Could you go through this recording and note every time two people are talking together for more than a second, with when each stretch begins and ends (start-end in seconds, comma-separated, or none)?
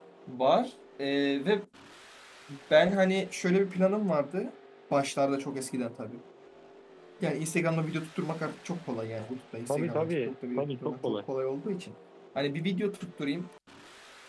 9.7-11.2